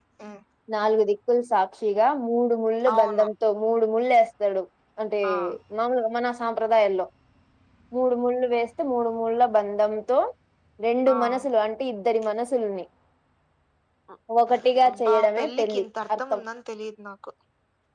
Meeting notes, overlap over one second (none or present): present